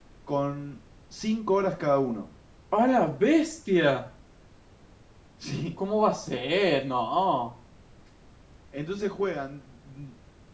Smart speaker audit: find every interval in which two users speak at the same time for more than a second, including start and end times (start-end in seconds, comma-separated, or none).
none